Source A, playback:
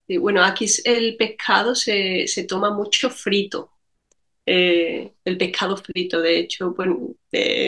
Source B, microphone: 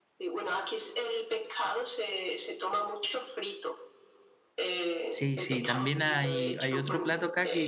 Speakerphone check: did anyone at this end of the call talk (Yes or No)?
Yes